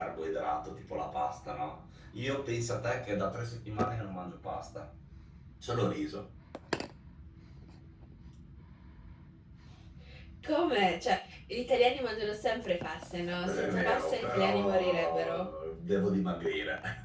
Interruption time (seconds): 13.4 s

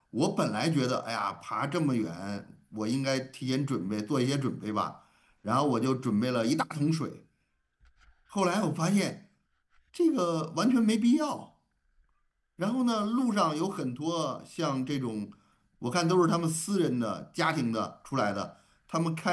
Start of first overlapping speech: none

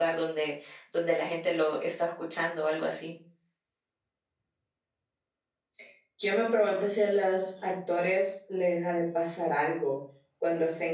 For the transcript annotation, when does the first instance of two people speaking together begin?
none

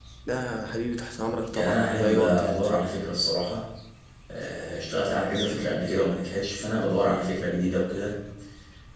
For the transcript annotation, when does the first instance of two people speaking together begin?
1.5 s

